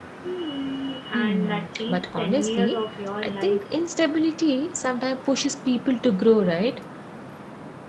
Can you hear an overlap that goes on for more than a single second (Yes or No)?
Yes